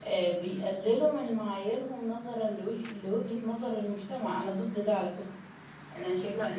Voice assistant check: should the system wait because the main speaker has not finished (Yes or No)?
Yes